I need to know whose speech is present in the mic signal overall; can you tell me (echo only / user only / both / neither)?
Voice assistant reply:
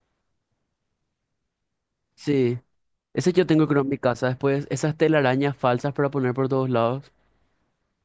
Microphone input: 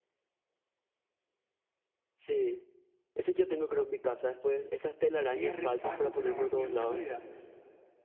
both